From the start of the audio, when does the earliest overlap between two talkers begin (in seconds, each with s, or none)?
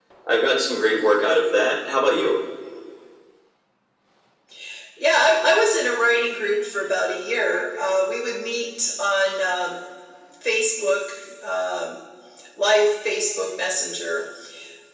none